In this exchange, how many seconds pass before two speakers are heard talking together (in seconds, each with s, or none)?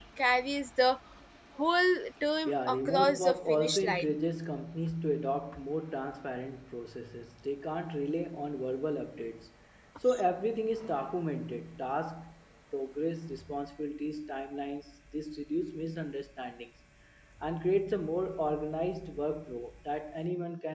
2.5 s